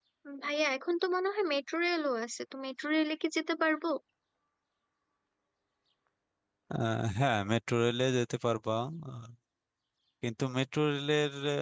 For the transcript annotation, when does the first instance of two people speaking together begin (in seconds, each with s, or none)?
none